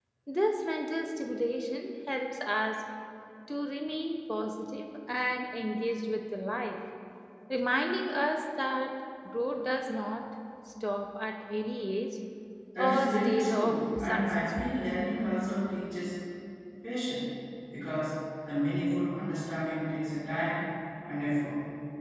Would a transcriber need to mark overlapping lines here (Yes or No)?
Yes